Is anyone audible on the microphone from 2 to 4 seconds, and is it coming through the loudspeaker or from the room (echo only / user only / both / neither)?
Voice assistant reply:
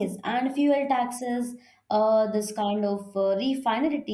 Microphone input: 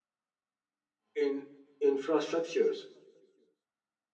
user only